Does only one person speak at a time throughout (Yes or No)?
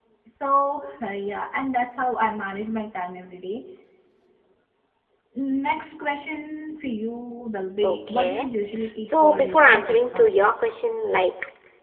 No